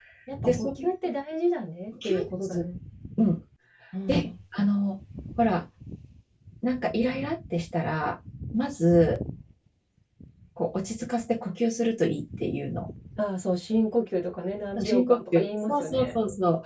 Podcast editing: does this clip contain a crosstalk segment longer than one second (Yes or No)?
Yes